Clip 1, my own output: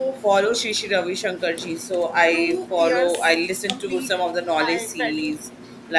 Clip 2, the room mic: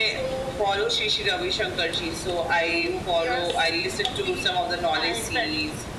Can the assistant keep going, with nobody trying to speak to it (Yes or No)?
Yes